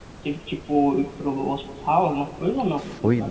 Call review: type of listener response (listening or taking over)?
taking over